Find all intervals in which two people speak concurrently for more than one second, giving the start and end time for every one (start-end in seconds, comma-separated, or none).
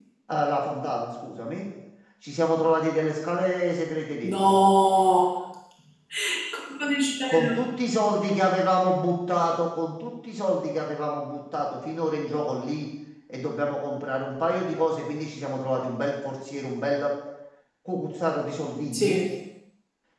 none